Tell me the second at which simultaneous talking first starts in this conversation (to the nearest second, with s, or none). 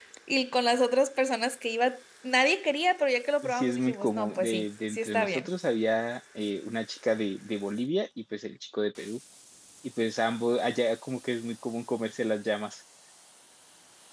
3 s